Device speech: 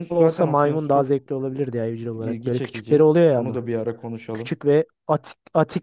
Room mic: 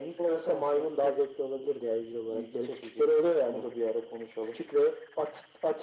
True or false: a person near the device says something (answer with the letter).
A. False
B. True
A